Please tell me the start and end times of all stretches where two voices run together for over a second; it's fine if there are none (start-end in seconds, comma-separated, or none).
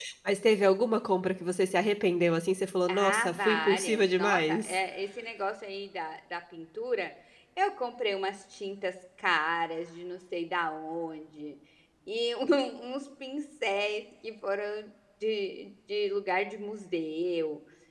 2.9-4.8